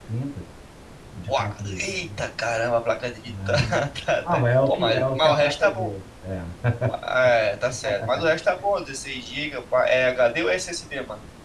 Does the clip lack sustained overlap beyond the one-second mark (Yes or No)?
No